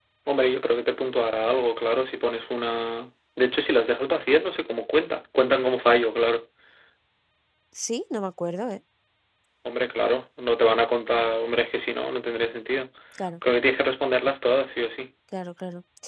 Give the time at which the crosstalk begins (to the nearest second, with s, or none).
none